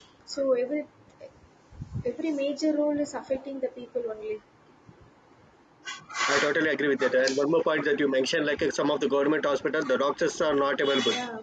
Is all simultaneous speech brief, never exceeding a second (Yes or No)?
Yes